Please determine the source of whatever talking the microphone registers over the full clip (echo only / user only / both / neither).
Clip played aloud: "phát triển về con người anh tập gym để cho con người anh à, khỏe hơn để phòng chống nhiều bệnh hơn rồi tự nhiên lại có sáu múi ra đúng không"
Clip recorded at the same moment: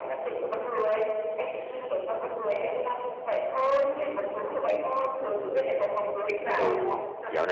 both